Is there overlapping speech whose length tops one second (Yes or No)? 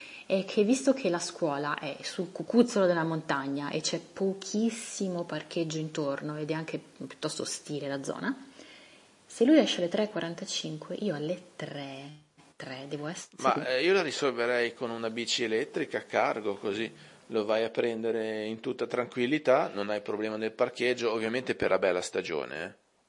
No